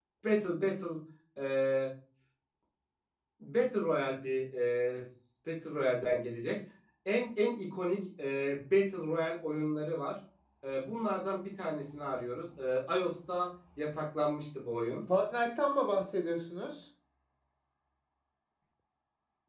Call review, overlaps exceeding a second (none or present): none